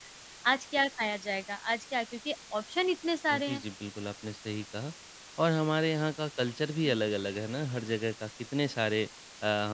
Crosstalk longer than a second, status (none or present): none